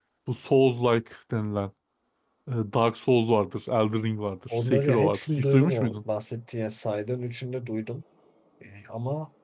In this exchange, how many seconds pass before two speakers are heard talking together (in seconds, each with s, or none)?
4.5 s